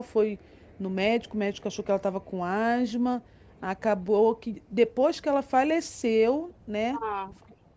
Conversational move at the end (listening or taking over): listening